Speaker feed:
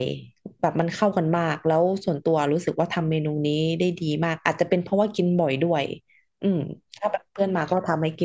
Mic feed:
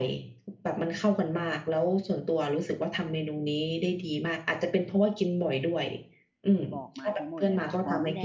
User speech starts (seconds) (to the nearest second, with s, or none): 7 s